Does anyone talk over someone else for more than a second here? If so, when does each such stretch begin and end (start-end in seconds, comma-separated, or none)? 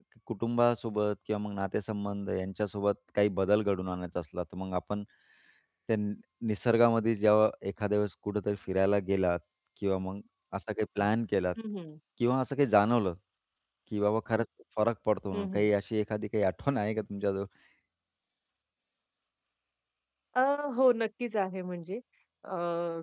none